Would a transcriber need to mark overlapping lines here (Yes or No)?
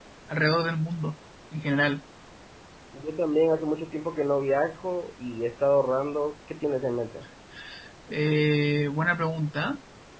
No